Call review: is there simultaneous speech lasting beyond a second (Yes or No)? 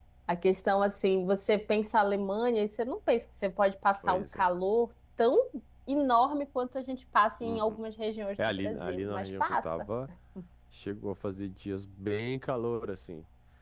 Yes